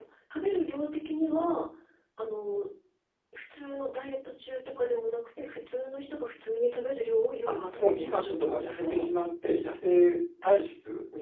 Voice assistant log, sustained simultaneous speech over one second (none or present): present